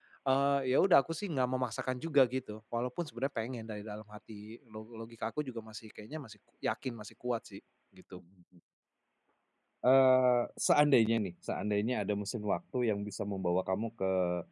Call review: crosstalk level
none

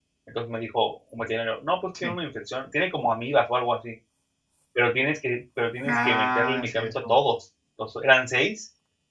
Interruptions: present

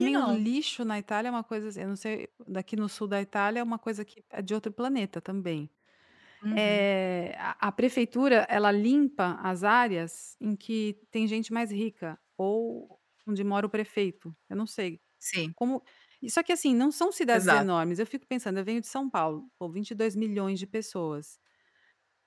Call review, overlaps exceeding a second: none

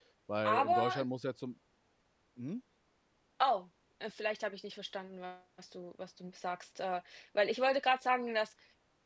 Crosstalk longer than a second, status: none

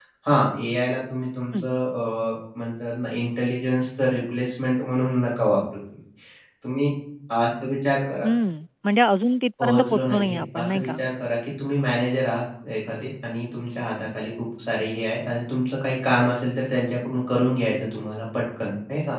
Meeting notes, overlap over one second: present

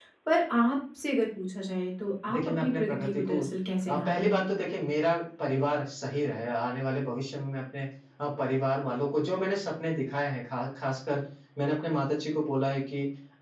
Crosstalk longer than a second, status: present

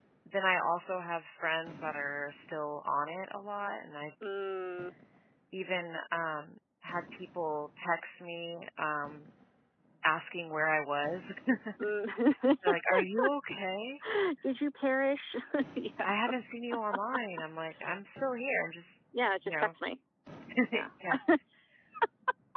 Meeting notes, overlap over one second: none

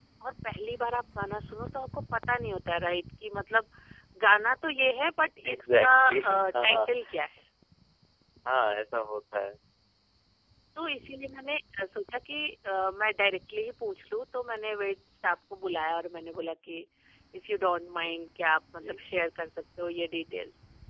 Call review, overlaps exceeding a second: present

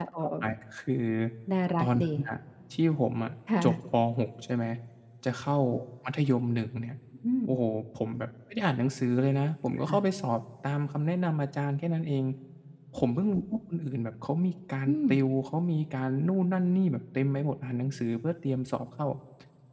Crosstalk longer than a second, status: none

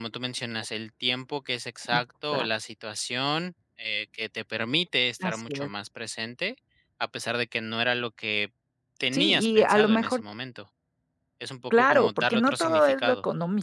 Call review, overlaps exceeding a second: present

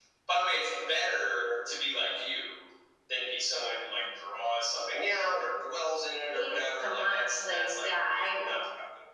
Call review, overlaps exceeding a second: present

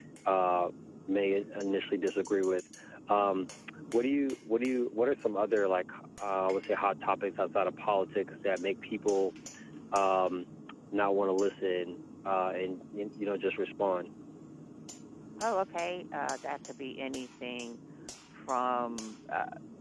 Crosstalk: none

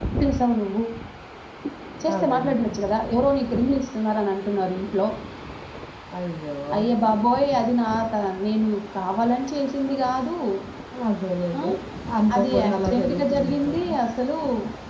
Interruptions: present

